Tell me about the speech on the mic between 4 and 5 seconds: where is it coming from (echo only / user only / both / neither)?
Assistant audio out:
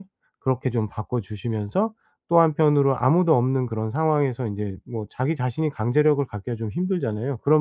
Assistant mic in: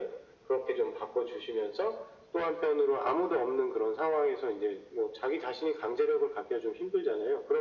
echo only